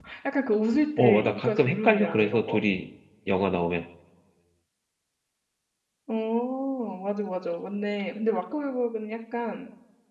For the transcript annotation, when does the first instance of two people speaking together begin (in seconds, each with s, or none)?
1.0 s